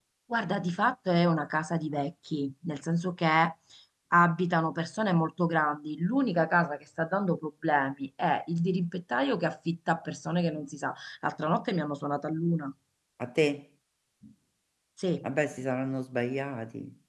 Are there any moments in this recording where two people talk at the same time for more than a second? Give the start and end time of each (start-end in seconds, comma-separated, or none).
none